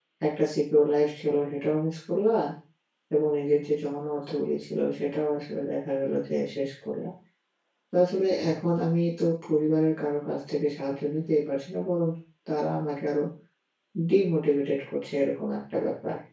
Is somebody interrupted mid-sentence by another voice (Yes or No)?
No